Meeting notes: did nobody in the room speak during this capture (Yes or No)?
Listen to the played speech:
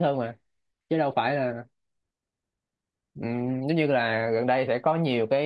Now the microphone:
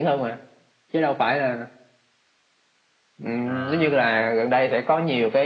No